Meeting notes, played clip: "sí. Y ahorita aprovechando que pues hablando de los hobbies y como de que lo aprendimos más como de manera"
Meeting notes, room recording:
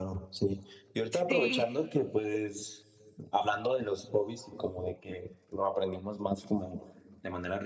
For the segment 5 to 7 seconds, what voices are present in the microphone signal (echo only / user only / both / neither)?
echo only